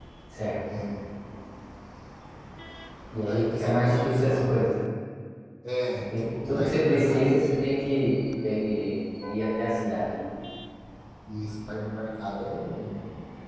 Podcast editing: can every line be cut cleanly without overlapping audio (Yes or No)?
No